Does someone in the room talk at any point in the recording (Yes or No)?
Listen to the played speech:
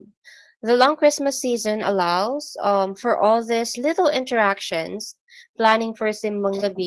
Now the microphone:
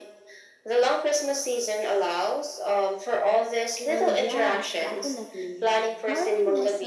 Yes